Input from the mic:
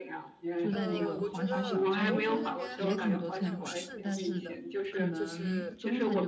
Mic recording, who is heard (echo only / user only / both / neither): both